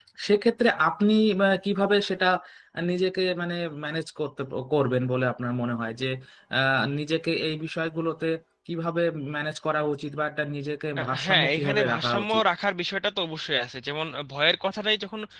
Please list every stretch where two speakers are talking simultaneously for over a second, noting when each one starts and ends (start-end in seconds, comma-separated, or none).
11.0-12.4